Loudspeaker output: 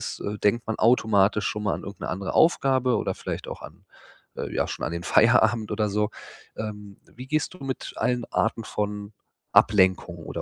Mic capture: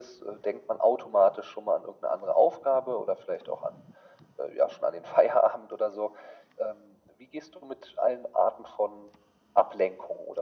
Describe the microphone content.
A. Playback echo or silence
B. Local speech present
A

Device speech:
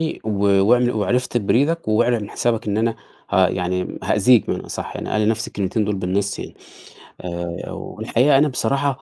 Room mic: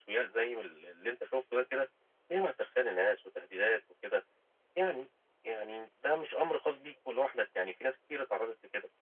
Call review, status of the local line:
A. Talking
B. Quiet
A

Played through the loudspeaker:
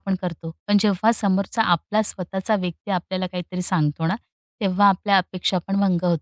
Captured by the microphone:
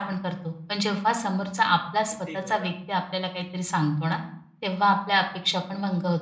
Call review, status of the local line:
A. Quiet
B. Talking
B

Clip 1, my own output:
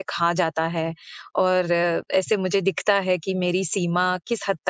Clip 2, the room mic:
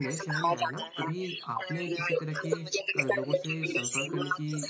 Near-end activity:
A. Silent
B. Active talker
B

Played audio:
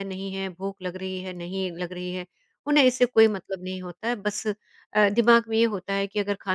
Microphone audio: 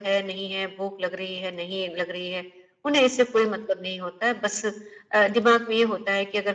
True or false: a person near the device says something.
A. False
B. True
A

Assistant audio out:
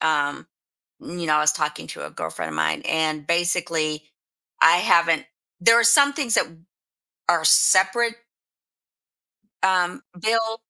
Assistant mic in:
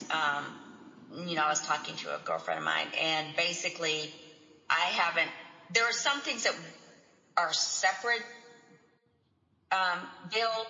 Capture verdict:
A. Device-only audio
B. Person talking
A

